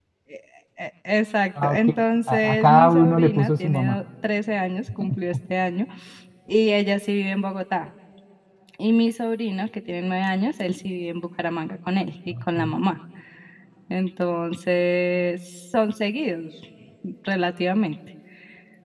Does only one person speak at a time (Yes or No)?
No